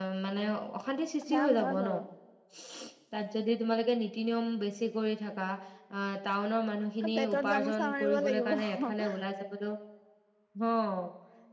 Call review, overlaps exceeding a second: present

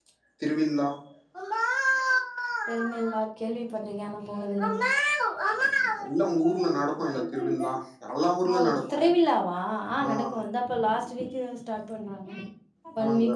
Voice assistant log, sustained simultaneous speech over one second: present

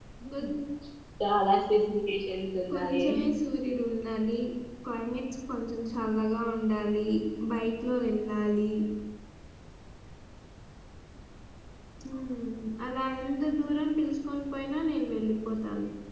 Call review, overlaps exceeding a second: none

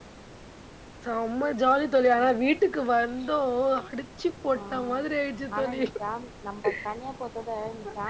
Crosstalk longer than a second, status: none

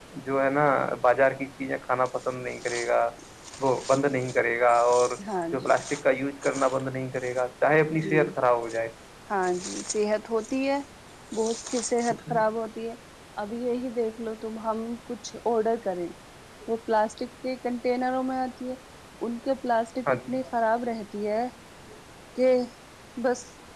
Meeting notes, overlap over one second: none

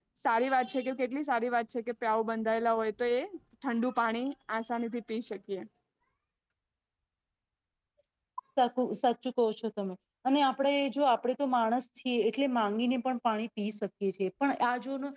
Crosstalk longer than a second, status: none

